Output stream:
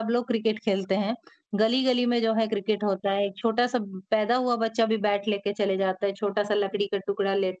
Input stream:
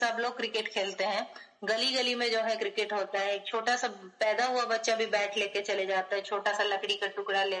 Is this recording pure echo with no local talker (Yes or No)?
Yes